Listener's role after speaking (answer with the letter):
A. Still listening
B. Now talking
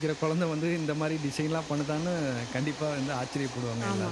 B